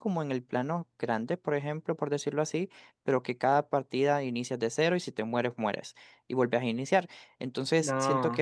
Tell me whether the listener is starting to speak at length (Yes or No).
No